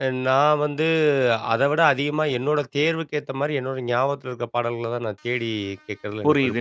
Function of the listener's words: taking over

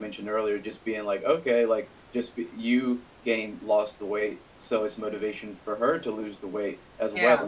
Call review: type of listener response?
listening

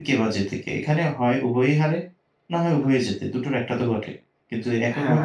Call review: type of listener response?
taking over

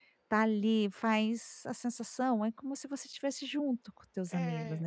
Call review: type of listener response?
taking over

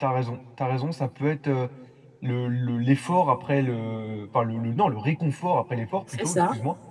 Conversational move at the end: listening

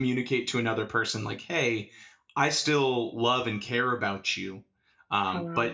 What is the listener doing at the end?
listening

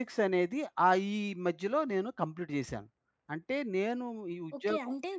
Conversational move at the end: taking over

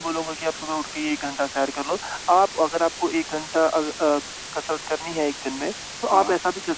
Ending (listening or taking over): listening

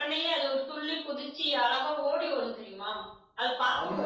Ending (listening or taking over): taking over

